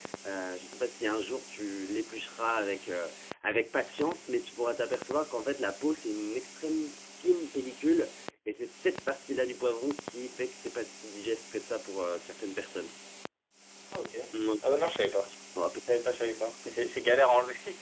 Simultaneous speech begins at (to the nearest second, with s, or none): none